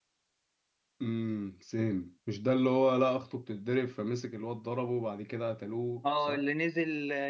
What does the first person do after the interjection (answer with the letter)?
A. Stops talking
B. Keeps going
A